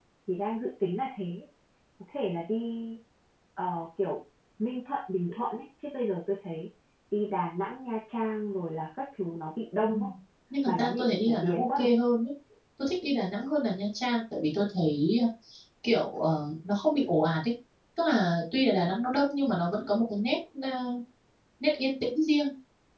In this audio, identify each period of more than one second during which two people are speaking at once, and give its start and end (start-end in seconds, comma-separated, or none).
10.7-11.9